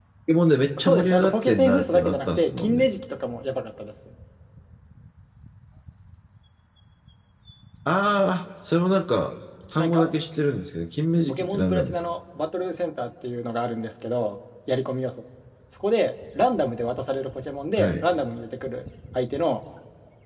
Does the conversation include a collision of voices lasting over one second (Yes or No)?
Yes